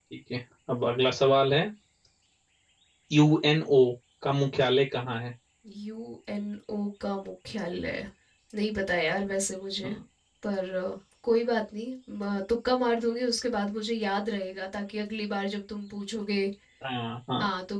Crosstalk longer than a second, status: none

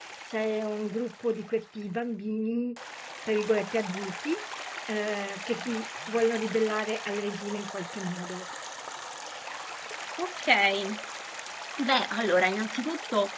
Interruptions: none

